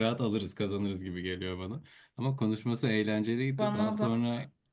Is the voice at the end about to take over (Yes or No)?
No